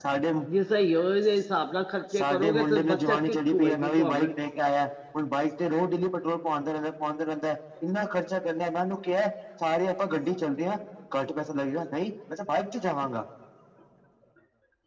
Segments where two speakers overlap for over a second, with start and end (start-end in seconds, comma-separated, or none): 2.2-4.3